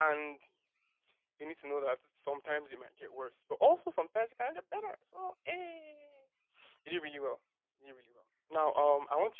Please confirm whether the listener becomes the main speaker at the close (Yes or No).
No